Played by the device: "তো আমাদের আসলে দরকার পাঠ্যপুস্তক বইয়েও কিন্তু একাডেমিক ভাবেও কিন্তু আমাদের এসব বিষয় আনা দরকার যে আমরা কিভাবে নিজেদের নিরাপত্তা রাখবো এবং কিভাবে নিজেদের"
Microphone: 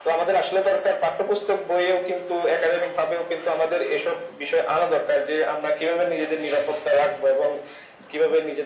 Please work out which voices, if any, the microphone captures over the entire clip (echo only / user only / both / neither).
echo only